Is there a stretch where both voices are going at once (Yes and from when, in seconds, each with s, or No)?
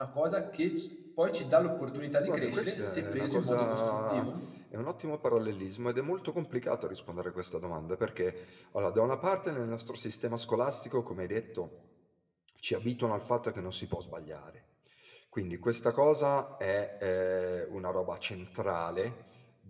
Yes, from 2.3 s